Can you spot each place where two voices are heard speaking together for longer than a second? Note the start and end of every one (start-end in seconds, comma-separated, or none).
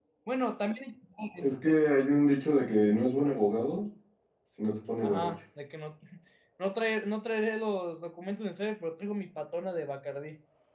none